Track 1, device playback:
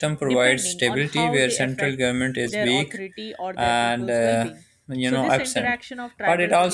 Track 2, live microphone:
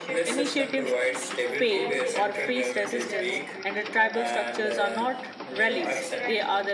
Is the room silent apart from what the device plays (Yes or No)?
No